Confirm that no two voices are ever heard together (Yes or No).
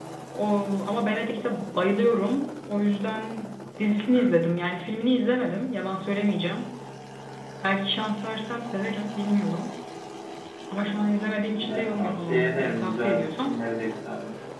No